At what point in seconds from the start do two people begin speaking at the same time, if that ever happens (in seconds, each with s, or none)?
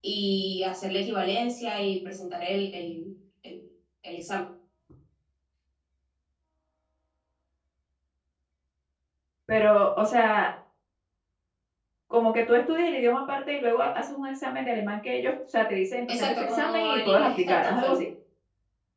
16.1 s